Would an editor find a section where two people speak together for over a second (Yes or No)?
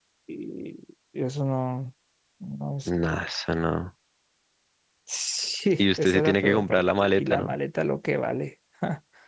Yes